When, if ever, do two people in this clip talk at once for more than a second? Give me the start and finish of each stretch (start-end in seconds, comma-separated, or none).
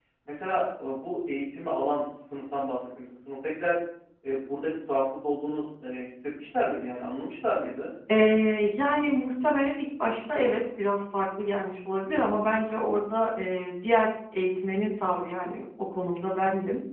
none